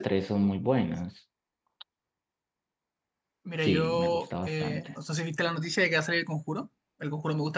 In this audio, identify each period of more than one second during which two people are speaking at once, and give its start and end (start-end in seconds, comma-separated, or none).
3.6-4.9